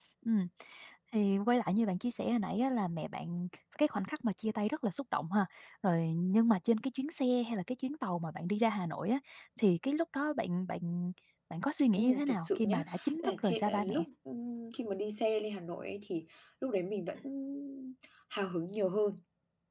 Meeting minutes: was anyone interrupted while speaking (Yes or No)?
Yes